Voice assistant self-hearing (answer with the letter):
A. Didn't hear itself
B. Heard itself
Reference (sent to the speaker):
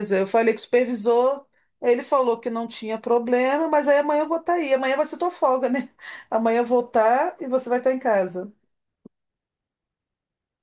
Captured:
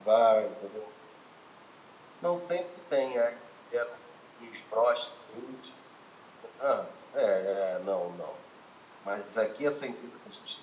A